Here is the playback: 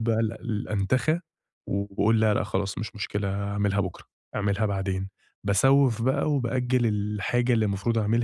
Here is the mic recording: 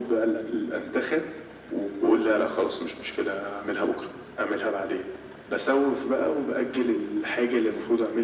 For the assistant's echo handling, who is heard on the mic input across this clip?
echo only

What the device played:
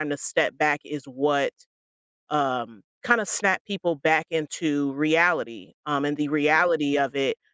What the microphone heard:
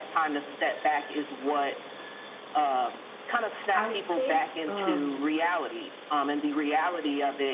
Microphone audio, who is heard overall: both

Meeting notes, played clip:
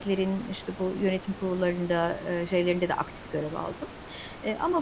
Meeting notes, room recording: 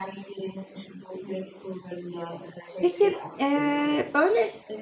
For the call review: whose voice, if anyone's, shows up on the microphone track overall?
both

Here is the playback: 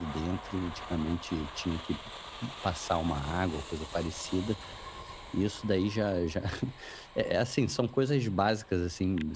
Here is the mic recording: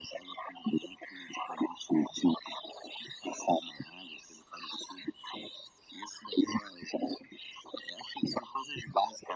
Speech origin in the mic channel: echo only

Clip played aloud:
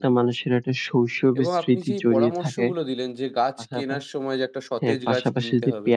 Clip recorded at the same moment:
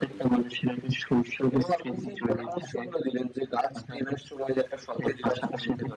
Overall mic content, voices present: echo only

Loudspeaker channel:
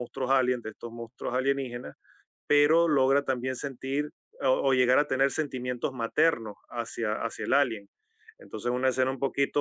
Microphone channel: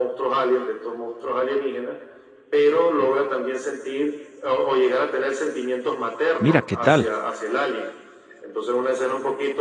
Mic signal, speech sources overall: both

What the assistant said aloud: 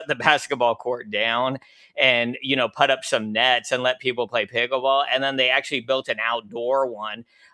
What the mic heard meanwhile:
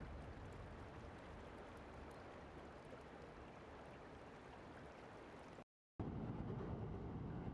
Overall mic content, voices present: neither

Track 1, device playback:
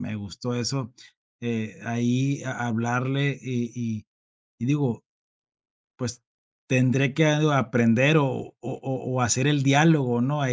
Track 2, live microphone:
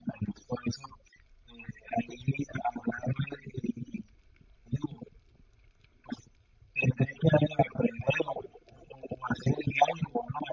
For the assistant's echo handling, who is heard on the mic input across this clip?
echo only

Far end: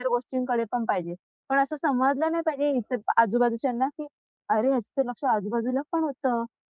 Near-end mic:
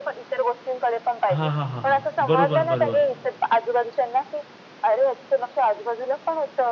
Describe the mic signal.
both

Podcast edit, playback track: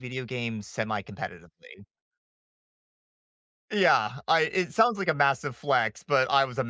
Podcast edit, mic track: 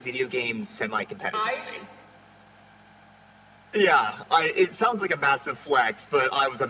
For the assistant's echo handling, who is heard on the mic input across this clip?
both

